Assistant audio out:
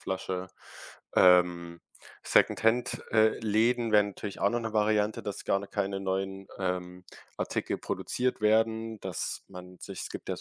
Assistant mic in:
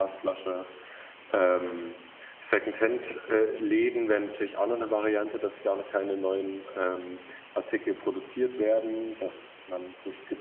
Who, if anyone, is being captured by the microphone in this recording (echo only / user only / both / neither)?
echo only